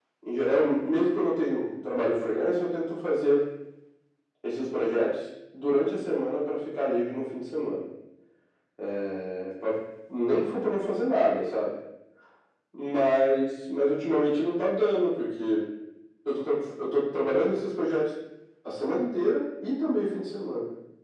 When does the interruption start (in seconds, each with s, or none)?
none